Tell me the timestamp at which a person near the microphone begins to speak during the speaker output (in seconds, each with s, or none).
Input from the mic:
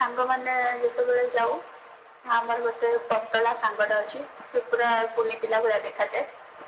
none